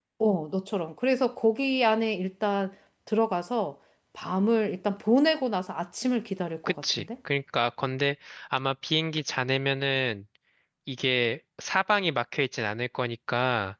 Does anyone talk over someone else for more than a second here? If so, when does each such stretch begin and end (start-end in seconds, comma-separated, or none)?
none